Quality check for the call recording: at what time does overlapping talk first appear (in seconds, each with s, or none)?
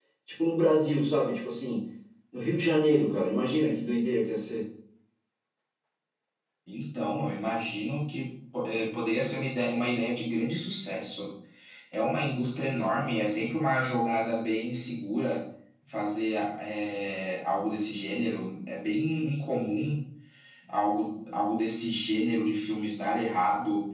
none